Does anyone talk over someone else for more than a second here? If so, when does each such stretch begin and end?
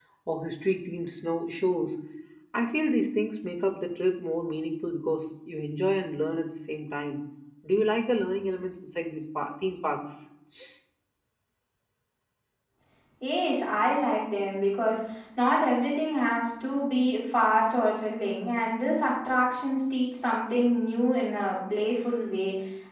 none

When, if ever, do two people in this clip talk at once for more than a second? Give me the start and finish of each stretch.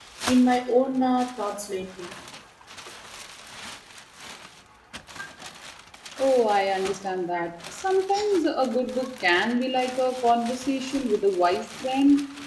none

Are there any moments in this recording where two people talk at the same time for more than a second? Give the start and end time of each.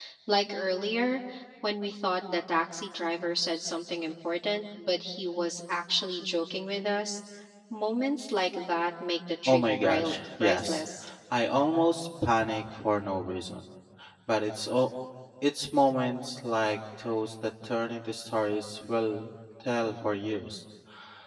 9.4-10.8

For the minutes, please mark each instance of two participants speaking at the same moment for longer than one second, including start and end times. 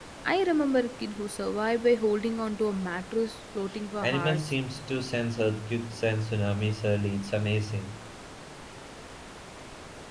none

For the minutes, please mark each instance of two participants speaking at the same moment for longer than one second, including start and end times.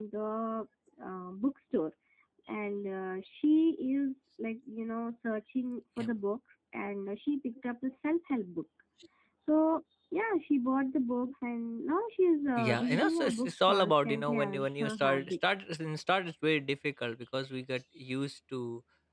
12.6-15.3

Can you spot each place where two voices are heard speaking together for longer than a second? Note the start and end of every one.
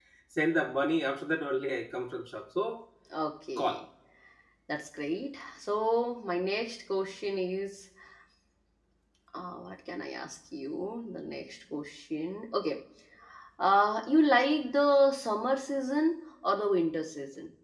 none

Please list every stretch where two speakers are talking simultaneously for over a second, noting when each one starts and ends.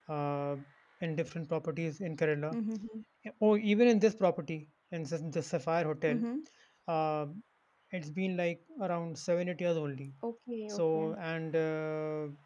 none

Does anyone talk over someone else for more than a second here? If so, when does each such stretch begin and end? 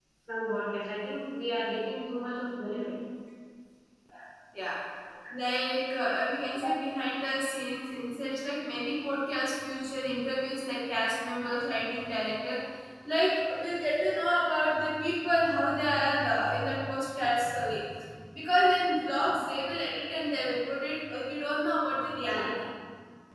none

